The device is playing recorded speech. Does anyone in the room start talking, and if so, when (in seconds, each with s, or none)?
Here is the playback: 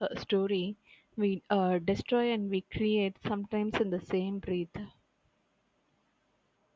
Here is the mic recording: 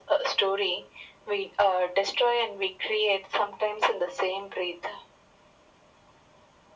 none